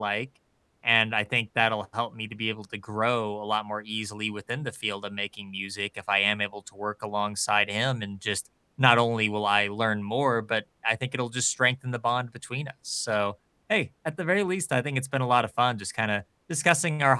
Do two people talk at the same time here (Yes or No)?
No